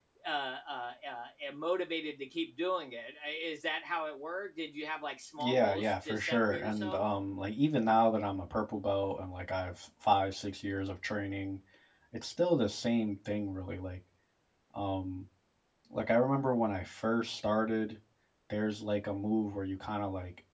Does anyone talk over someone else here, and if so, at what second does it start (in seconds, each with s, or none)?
5.4 s